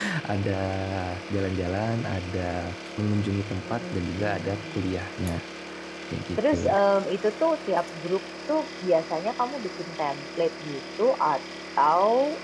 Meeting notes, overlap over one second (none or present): present